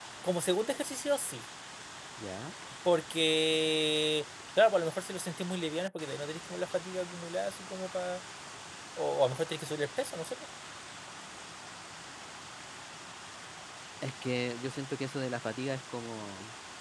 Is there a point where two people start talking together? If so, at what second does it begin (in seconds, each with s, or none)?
none